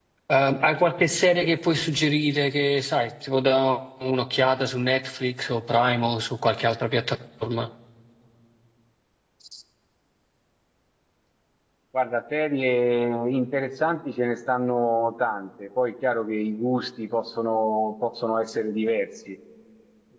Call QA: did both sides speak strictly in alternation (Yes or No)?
Yes